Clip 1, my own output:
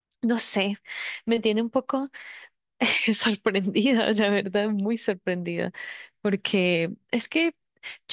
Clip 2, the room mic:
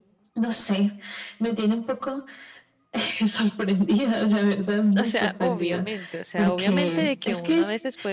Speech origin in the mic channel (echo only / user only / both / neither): both